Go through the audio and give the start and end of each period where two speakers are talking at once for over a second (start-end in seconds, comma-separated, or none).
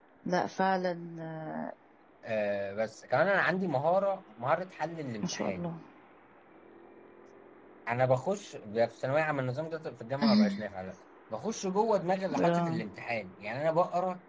none